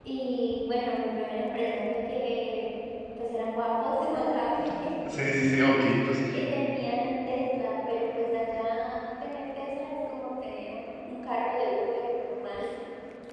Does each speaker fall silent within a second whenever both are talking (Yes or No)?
Yes